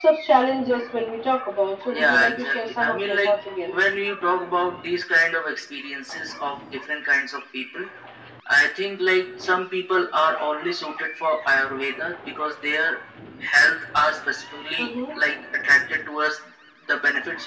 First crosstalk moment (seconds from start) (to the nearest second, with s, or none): 2 s